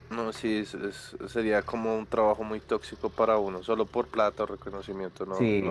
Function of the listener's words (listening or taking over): taking over